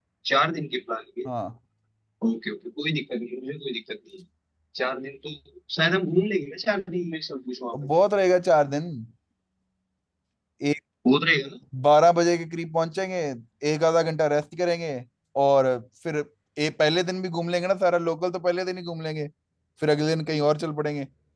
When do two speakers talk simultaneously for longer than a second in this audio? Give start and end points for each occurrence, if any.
none

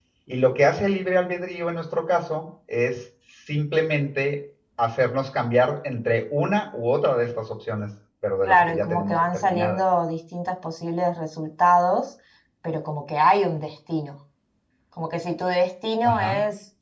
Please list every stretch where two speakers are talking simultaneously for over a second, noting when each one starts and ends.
8.4-9.8

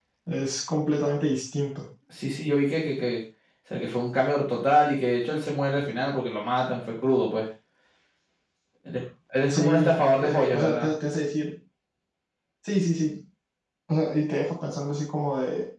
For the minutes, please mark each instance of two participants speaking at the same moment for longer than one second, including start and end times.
9.5-10.9

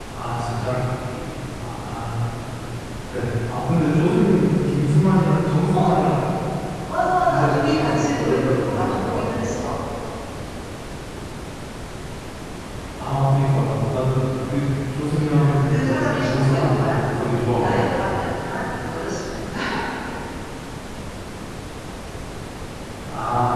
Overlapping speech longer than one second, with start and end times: 7.2-9.2, 15.6-17.2

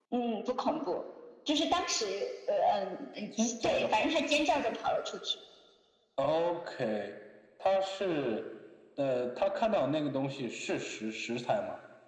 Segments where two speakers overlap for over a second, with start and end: 3.4-4.7

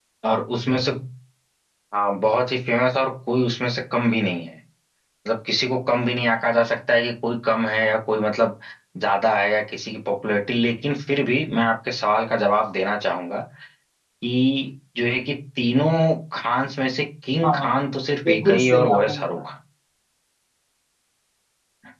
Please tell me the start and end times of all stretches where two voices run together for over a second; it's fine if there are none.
18.2-19.5

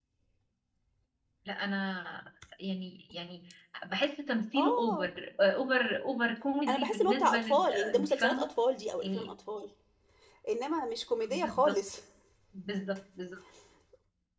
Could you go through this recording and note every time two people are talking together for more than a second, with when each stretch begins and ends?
6.7-8.5

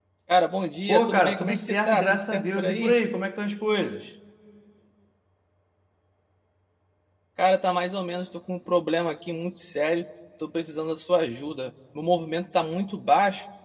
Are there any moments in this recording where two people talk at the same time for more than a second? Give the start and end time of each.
0.9-2.9

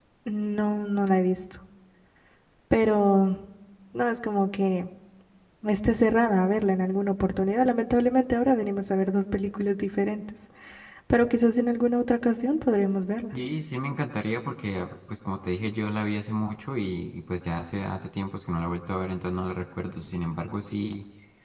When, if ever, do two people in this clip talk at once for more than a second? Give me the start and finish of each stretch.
none

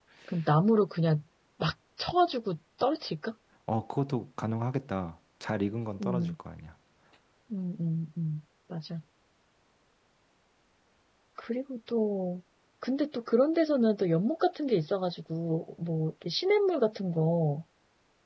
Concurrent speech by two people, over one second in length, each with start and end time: none

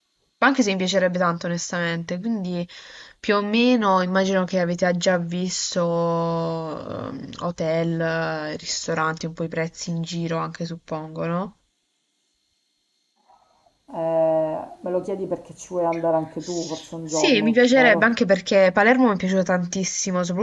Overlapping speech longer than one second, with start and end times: 16.4-18.1

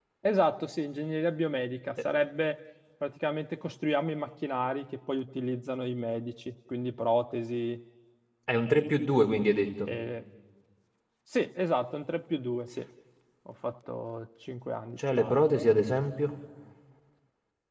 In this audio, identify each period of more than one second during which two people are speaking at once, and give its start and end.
none

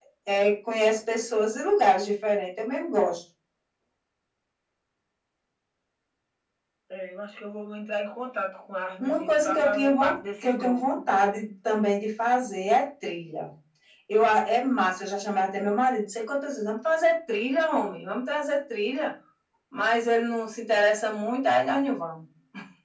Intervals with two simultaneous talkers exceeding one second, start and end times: 9.0-11.0

